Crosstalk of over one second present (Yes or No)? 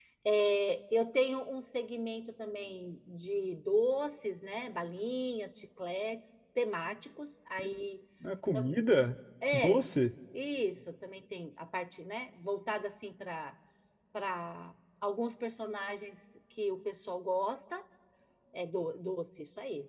No